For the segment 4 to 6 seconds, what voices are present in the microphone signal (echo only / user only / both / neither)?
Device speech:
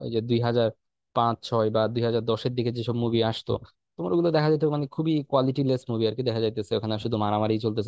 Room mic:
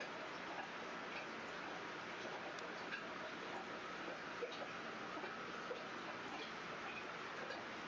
neither